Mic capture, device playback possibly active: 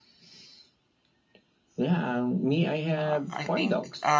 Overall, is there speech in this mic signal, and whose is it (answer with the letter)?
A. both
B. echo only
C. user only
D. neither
A